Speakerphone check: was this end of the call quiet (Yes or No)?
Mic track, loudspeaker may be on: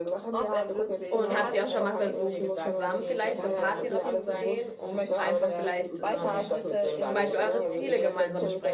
No